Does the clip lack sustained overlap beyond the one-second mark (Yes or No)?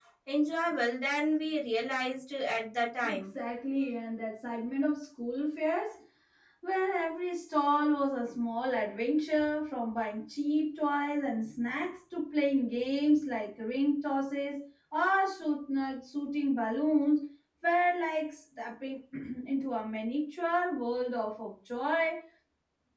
Yes